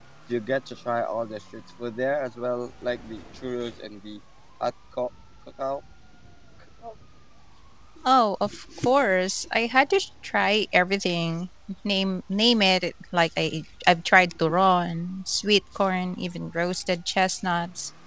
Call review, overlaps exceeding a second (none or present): none